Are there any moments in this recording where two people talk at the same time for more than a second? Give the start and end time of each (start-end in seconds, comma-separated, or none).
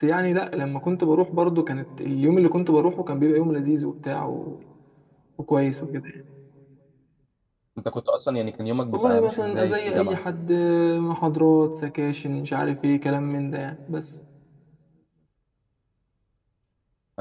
8.9-10.2